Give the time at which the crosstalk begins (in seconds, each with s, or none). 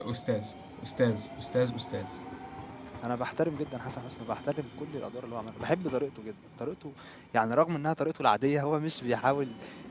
none